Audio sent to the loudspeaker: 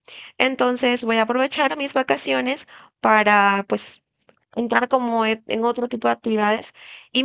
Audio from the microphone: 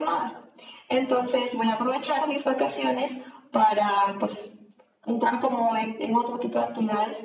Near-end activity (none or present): none